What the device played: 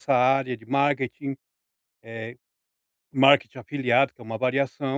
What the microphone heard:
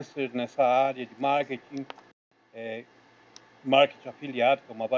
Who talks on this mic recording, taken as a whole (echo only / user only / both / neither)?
echo only